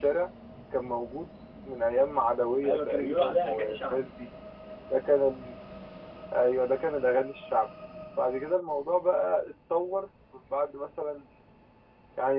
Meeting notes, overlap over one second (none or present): present